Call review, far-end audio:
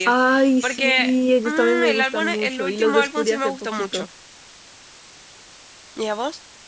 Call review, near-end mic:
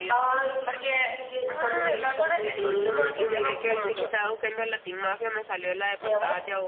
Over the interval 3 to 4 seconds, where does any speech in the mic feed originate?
both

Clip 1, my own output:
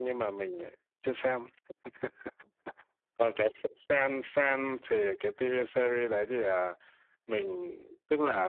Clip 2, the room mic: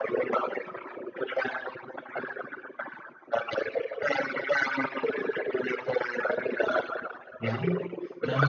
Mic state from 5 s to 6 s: echo only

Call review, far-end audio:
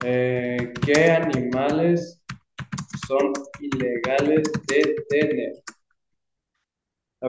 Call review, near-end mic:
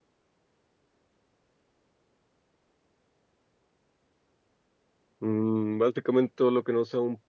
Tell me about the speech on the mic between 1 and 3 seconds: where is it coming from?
neither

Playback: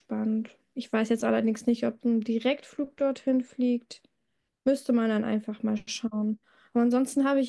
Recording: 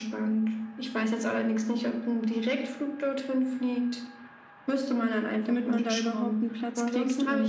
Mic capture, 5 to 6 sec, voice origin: both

